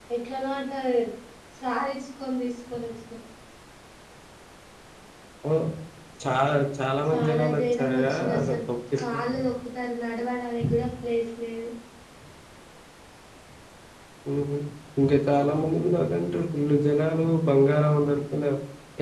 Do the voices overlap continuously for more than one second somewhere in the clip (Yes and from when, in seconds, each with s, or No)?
Yes, from 7.1 s